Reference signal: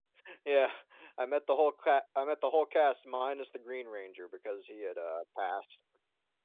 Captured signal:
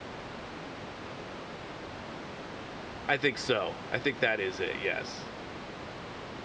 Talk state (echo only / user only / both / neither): user only